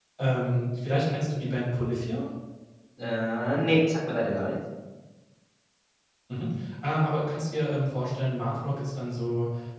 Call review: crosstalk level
none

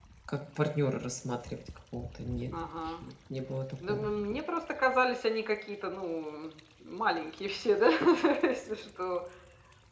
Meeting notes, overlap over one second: none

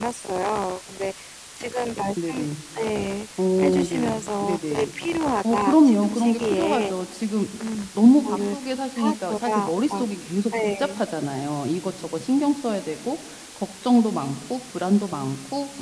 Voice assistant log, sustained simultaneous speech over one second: present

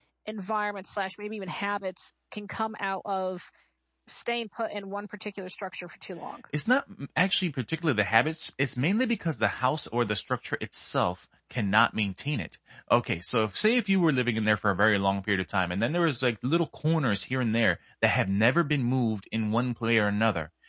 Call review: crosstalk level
none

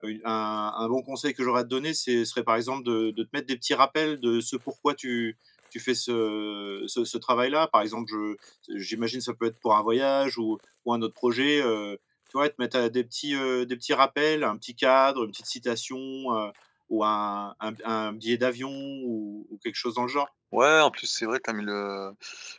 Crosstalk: none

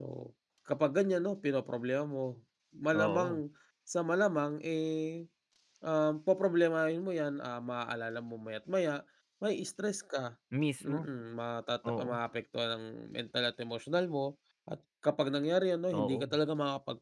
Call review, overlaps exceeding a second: none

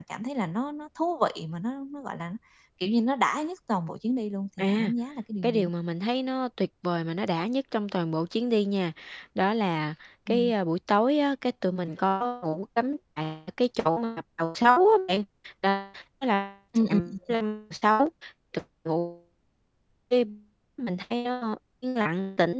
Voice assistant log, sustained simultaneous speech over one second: none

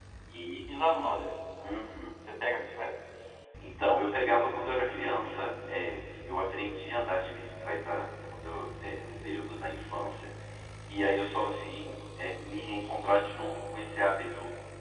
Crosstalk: none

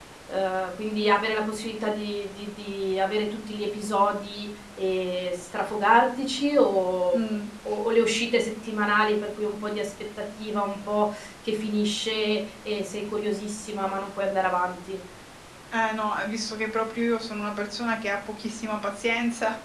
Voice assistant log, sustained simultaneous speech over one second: none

